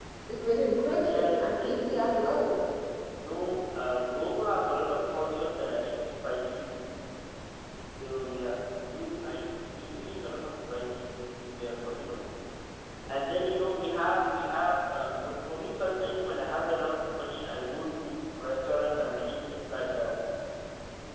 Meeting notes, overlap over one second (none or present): present